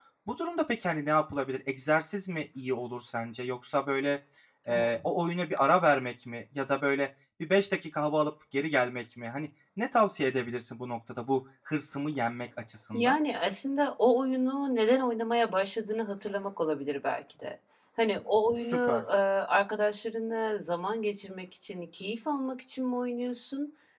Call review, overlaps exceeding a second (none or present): none